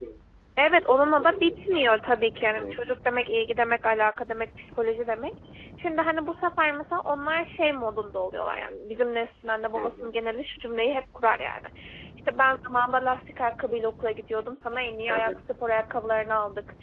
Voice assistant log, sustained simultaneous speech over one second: none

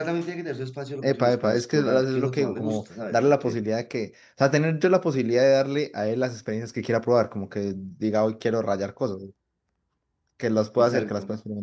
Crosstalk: present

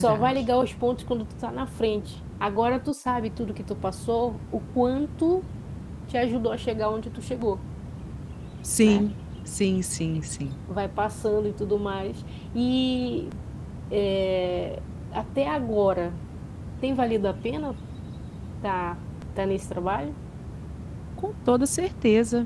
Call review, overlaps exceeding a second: none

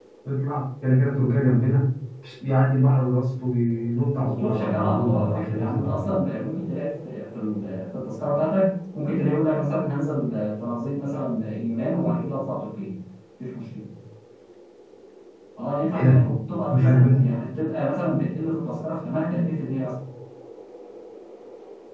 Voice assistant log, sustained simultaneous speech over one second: present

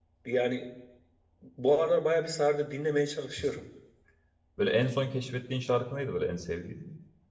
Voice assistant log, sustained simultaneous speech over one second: none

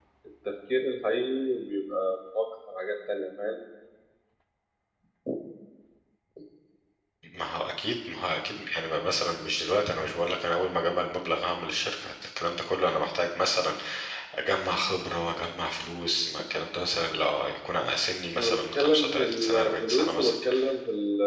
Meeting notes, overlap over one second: present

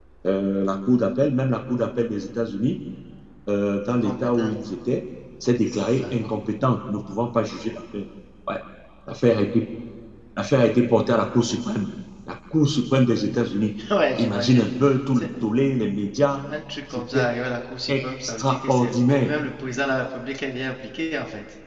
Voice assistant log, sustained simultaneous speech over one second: present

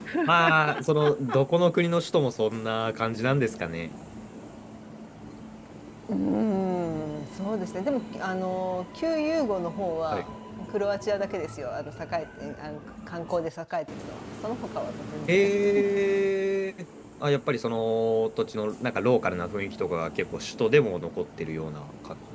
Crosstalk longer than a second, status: none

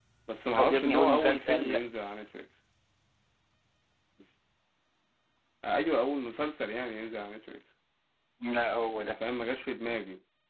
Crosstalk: present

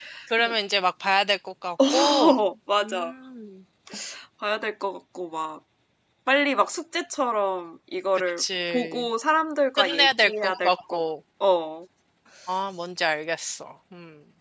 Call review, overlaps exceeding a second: present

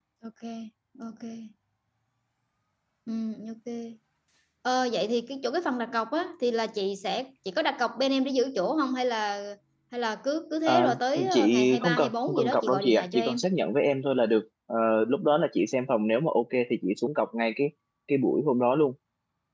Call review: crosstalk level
present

